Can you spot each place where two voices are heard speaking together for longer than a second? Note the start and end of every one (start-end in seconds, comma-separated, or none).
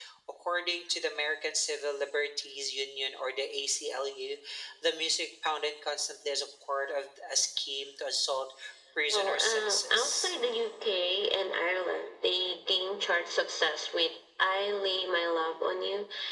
9.1-10.3